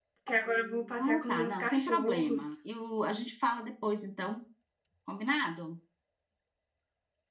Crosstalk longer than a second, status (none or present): present